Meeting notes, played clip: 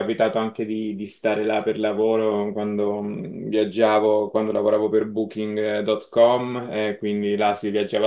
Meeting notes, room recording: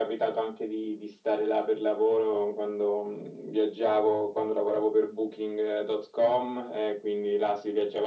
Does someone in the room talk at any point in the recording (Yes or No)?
No